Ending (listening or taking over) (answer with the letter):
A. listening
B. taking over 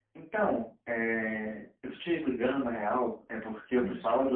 A